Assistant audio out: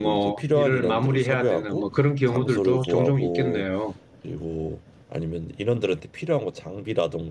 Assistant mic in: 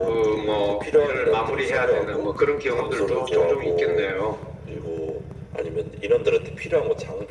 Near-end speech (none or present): none